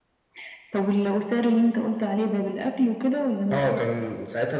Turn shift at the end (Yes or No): Yes